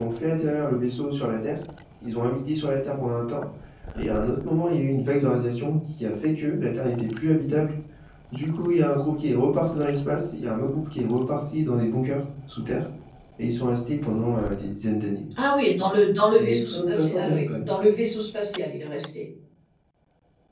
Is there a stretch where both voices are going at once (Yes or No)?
Yes